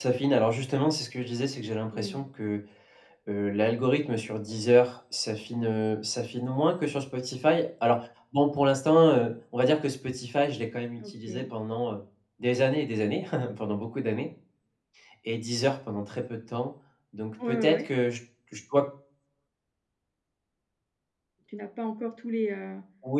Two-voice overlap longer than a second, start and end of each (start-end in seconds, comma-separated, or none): none